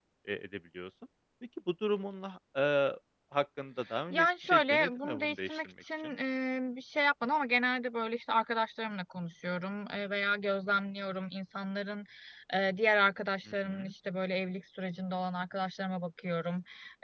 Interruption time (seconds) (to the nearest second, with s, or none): 4 s